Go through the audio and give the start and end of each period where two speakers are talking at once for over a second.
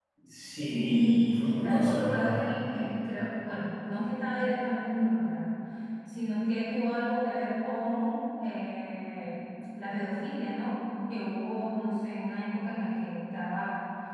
0.7-2.5

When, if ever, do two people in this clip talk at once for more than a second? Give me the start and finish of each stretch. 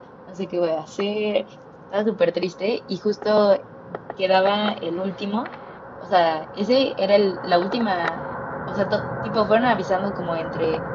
none

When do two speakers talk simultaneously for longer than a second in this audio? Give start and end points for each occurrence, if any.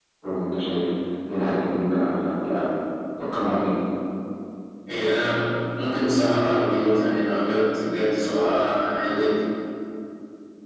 none

